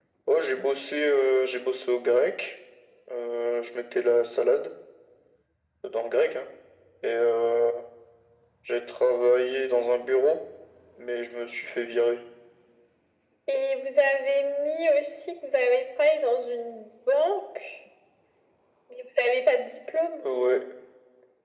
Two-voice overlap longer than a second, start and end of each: none

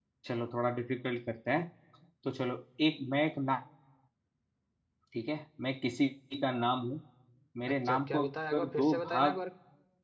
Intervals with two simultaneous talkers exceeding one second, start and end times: 7.7-9.4

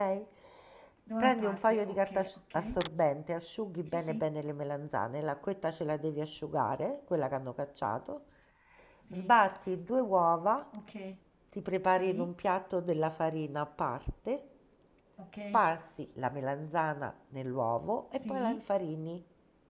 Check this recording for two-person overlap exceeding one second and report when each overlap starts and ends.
1.2-2.8

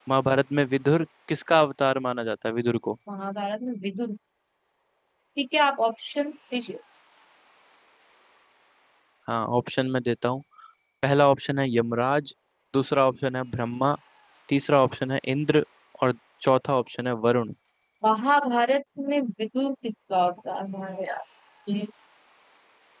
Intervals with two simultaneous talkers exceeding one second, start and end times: none

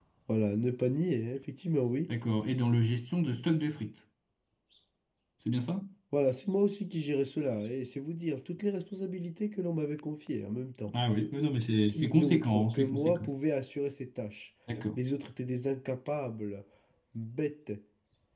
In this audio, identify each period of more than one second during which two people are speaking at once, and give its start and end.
11.9-13.2

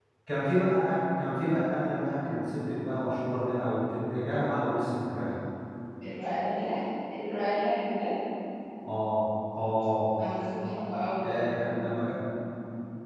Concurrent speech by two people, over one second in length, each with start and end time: none

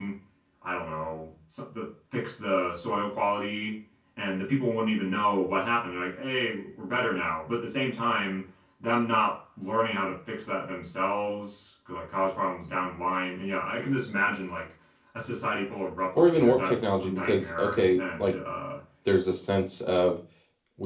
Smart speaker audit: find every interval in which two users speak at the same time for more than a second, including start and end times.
16.2-18.4

